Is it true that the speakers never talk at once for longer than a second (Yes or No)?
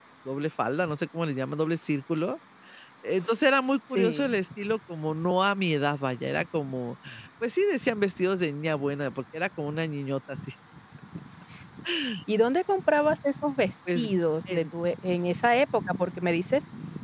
Yes